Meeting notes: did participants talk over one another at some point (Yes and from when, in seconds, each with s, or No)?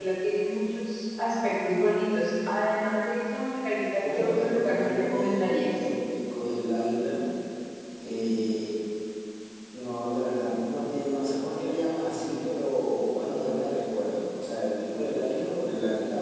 Yes, from 4.0 s